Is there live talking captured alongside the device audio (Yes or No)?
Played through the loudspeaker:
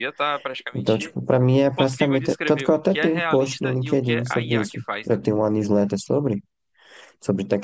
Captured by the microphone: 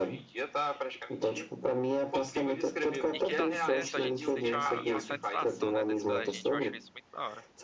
Yes